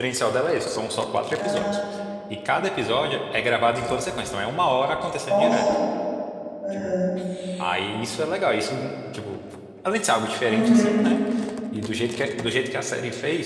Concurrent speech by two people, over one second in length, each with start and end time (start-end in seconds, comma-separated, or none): none